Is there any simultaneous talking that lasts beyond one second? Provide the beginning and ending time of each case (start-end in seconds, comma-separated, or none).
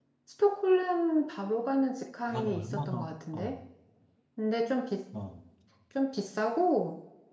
2.2-3.5